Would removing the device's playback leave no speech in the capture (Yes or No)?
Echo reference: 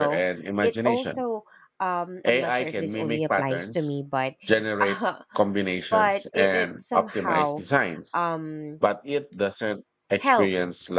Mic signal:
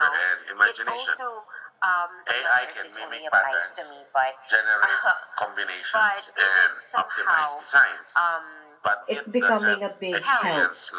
No